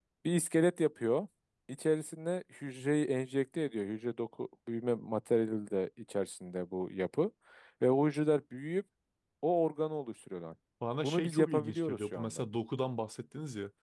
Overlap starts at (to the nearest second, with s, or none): 11 s